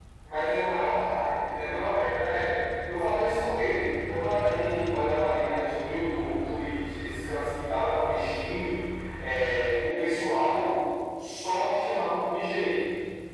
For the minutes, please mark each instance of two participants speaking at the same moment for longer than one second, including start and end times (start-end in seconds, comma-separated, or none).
none